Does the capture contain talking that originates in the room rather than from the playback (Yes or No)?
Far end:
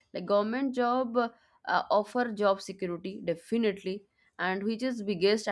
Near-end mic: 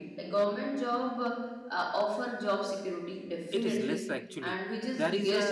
Yes